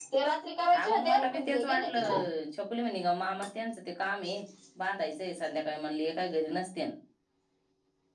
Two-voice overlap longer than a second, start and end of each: 0.7-2.1

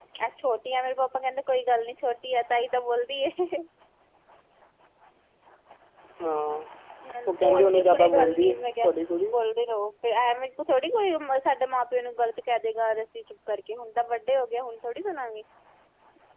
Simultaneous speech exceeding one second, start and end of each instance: 7.3-8.9

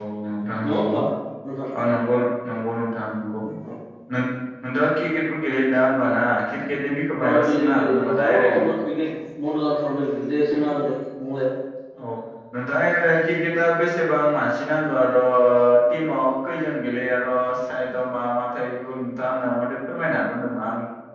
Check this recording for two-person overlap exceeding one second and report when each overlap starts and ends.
7.2-8.6

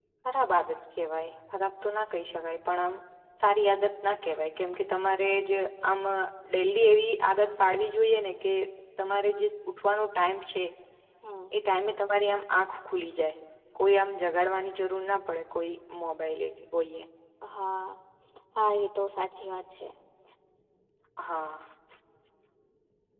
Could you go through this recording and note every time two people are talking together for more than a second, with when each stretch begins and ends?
none

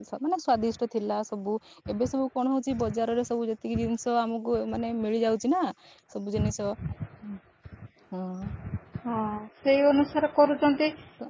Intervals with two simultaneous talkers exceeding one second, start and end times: none

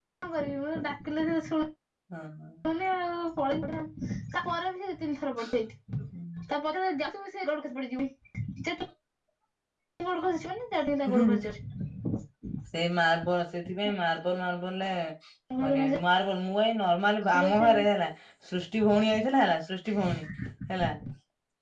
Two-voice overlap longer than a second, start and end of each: none

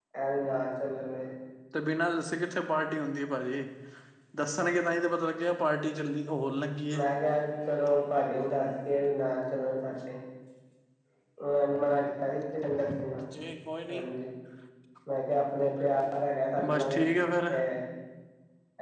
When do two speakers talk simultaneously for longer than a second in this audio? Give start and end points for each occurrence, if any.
none

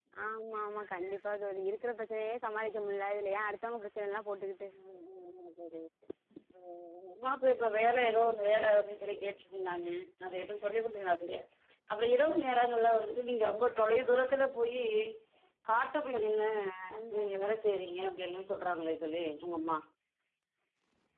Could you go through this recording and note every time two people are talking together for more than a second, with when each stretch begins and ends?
none

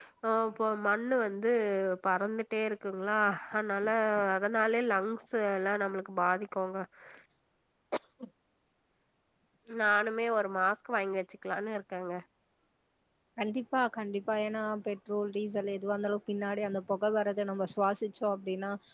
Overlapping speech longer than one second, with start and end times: none

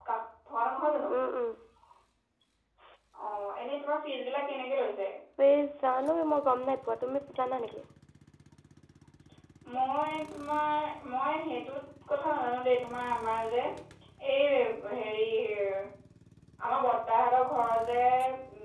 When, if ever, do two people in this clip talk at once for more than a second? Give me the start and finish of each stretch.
none

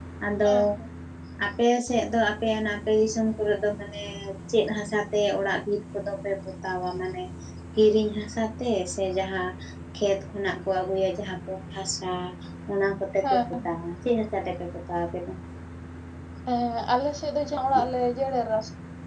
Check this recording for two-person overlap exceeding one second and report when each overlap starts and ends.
none

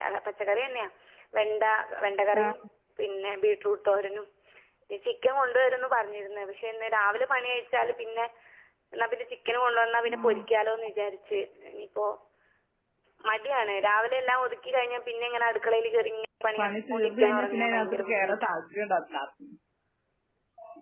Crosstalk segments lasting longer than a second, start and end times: 16.6-18.5

